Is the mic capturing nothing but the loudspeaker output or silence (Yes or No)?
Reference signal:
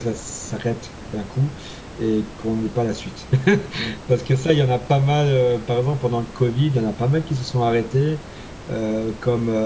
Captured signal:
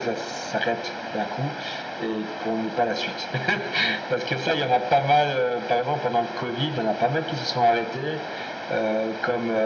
Yes